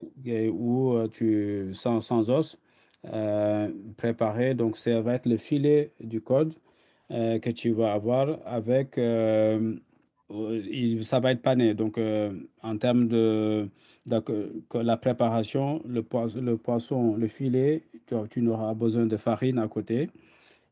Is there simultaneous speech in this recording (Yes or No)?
No